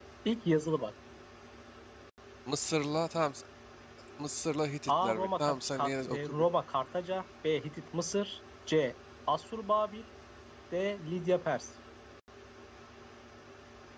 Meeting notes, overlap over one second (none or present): present